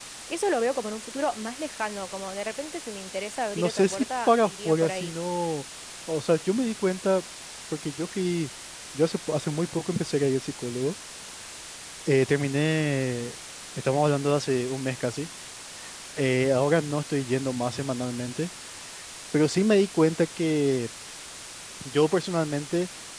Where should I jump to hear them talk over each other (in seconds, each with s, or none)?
3.5 s